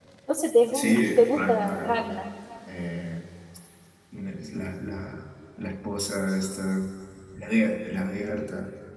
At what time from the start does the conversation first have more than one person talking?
1 s

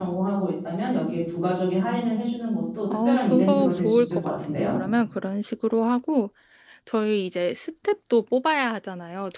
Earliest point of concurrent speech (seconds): 3 s

